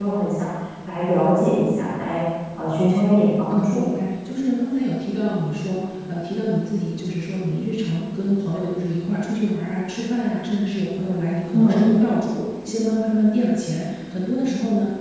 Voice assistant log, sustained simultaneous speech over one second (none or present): none